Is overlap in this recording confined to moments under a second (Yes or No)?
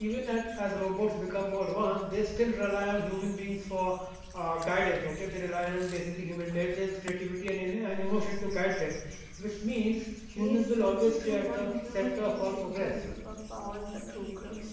No